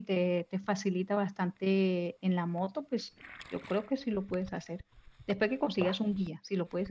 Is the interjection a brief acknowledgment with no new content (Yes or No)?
Yes